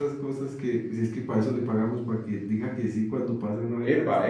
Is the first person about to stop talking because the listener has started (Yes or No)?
Yes